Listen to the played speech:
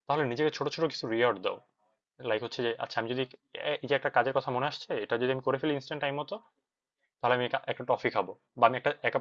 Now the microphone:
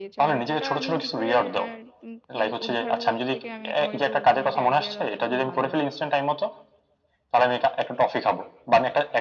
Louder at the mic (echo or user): echo